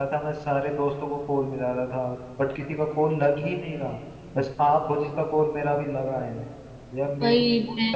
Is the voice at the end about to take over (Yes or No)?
No